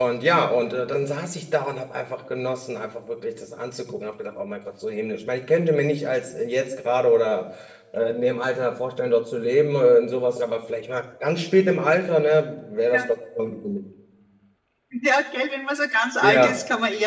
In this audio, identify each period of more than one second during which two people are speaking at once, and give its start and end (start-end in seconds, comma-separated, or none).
none